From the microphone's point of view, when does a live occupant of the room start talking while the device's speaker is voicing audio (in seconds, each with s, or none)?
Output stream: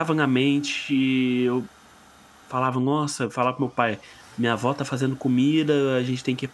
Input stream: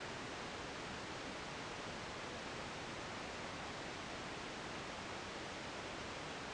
none